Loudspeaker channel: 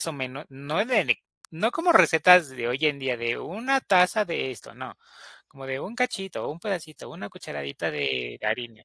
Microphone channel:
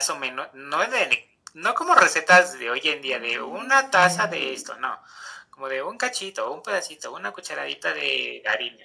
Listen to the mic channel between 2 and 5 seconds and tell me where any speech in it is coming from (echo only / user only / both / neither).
both